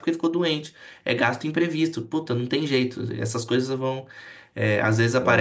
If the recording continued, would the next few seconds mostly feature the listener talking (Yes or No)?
No